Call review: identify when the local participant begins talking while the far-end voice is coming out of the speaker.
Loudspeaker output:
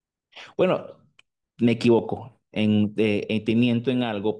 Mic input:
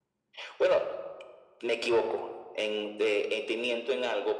none

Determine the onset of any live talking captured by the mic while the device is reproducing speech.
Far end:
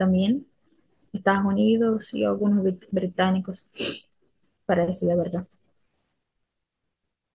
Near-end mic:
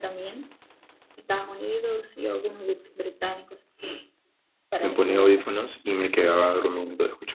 4.8 s

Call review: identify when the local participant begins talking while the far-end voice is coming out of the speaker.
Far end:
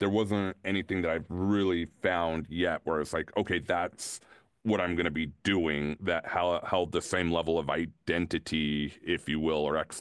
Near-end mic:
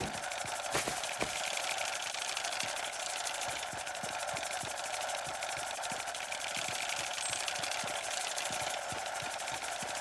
none

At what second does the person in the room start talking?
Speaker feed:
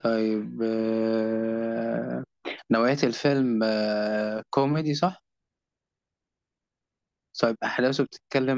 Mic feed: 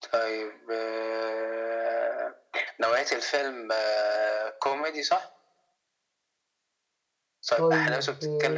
7.6 s

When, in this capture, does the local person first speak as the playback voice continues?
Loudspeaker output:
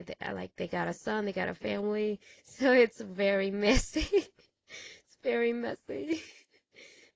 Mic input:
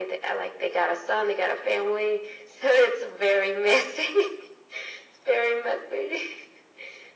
none

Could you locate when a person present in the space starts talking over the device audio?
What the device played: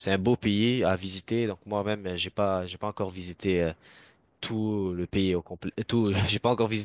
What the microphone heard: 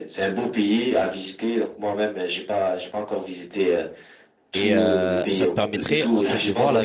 4.5 s

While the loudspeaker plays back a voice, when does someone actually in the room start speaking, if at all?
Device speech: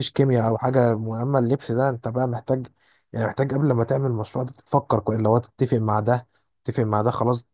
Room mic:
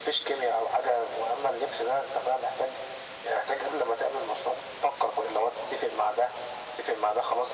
none

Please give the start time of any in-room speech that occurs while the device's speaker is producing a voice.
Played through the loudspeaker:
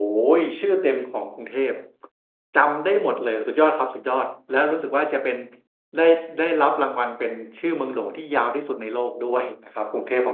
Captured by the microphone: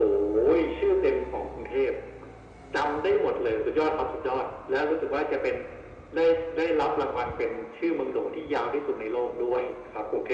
none

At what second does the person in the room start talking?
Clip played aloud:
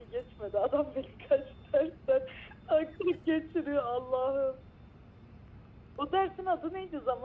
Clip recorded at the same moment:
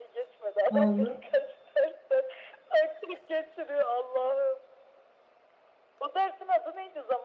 0.7 s

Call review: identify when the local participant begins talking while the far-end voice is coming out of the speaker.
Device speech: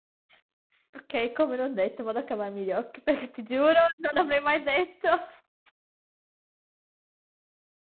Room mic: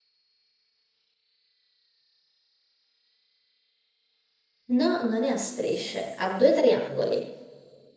4.7 s

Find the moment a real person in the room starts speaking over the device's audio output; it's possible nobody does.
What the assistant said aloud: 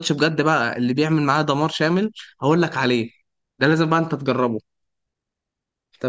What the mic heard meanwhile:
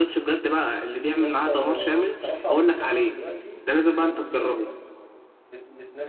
1.1 s

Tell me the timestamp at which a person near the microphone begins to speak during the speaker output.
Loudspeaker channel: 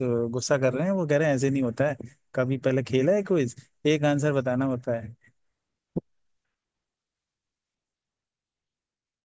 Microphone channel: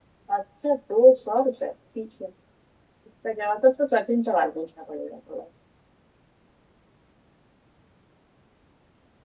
0.3 s

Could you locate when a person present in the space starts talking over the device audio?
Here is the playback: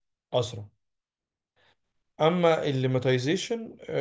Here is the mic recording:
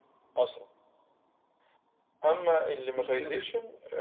3.0 s

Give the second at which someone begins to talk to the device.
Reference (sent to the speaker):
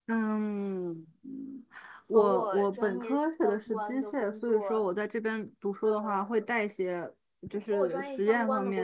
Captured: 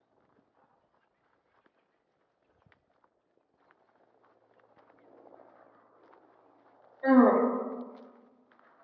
7.0 s

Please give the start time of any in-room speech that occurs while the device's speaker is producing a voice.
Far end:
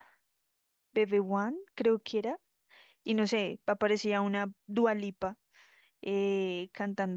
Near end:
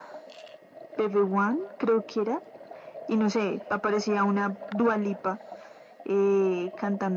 none

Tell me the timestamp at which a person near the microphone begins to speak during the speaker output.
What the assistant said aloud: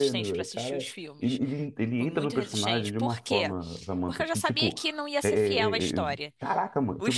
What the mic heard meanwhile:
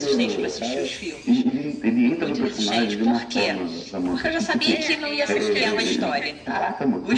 4.7 s

